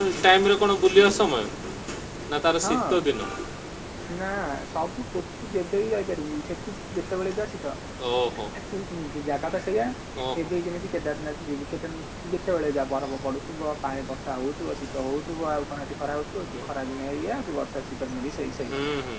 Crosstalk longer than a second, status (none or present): none